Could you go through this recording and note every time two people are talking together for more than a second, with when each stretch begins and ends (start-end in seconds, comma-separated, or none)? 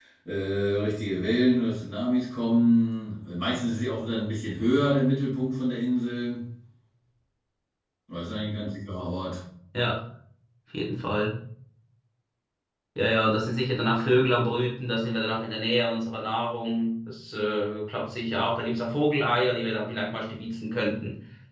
none